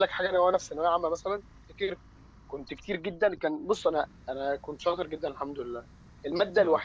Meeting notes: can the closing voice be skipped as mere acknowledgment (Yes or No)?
Yes